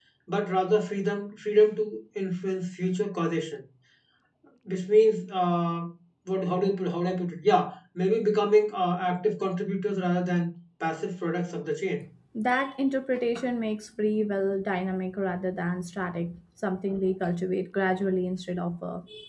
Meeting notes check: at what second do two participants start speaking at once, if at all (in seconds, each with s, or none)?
none